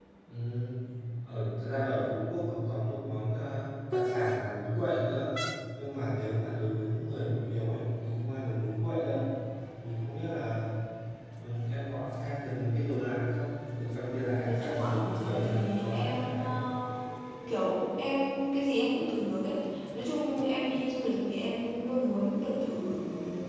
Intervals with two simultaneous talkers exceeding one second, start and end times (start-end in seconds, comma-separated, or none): 14.4-16.5